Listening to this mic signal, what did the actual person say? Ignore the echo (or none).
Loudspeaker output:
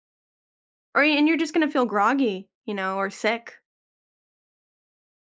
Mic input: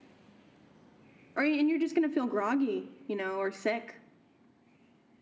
none